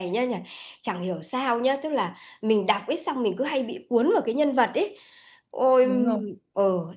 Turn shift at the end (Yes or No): No